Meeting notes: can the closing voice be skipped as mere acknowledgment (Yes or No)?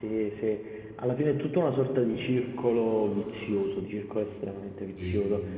Yes